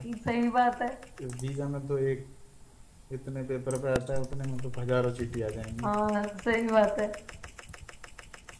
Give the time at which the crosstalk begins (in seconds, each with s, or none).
none